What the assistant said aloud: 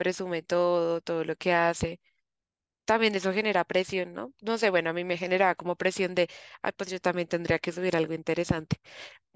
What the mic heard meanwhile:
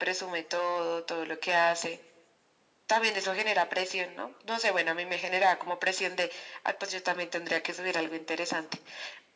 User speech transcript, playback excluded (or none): none